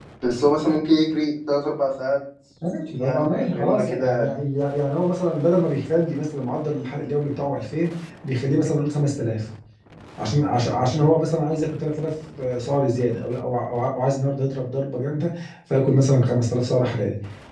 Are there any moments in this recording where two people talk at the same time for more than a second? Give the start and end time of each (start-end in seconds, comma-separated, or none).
3.0-4.3